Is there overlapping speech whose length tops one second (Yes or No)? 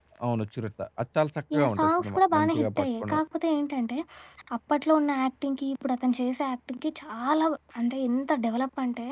Yes